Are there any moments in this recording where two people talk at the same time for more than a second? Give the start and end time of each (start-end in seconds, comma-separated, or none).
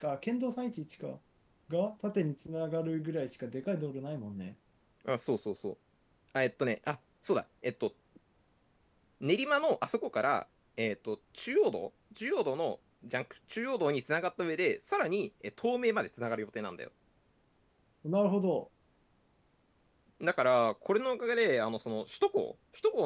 none